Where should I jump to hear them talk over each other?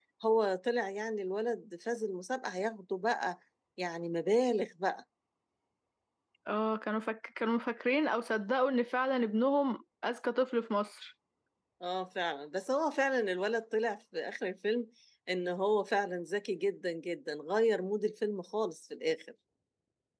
none

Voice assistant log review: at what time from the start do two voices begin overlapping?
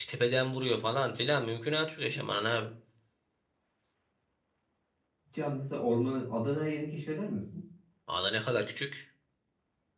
none

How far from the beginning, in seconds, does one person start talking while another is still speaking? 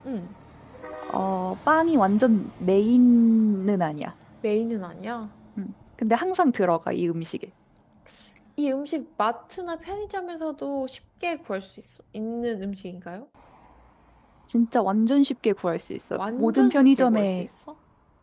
16.2 s

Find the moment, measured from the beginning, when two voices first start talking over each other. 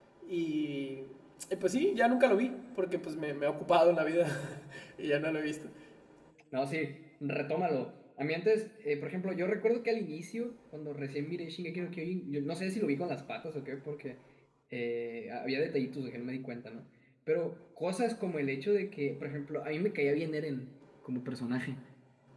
none

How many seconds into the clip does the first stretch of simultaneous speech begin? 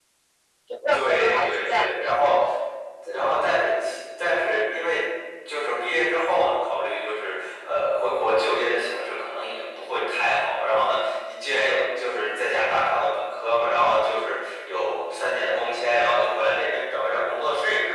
0.9 s

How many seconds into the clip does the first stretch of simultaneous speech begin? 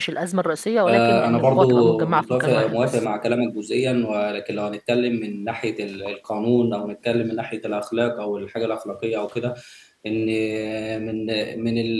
0.9 s

